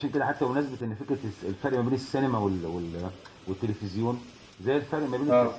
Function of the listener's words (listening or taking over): listening